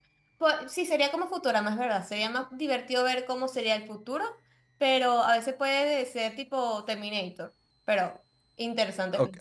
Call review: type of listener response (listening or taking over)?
taking over